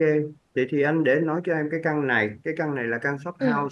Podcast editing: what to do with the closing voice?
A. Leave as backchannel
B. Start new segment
A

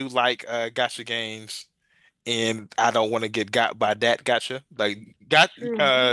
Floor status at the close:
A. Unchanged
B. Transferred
A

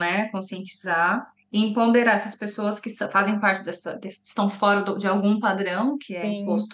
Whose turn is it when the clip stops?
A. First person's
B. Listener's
A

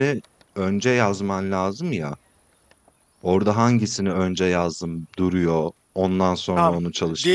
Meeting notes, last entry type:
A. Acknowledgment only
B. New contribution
B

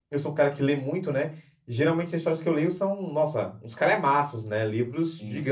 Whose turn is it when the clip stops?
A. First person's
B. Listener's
A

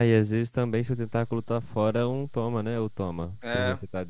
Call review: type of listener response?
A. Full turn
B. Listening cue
A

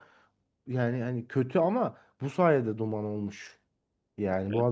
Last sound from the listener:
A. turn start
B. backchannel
B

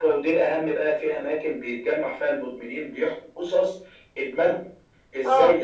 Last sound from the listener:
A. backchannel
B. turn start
A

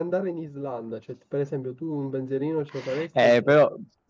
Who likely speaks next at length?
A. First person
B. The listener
B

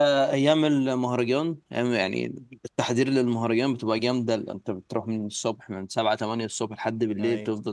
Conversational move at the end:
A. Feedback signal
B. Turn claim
A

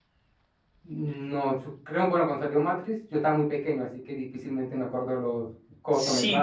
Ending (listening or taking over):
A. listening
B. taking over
B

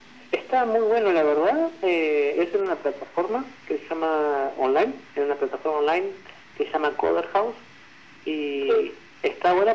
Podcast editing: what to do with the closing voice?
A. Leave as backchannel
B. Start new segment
A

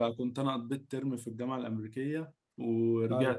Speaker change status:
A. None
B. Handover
A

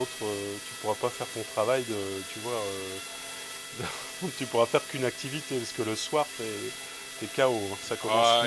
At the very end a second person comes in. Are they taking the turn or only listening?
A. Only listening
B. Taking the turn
B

